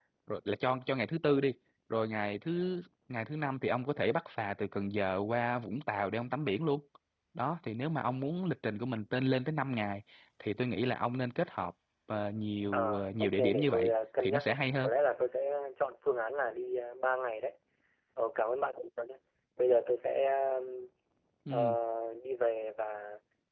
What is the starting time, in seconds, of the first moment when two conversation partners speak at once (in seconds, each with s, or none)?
12.7 s